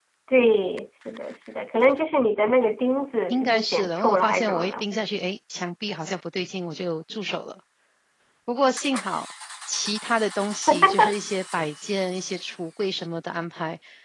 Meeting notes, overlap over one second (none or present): present